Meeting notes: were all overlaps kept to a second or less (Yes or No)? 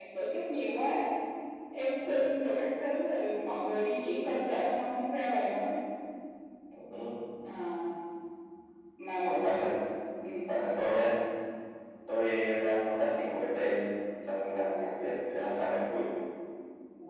Yes